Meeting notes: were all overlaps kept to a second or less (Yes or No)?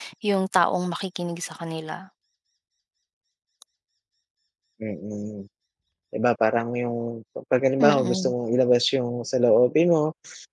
Yes